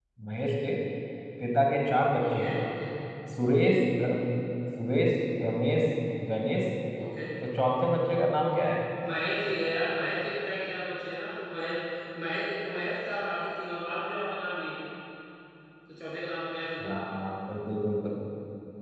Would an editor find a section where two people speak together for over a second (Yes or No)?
No